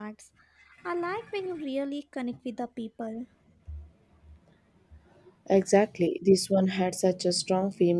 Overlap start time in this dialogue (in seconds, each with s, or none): none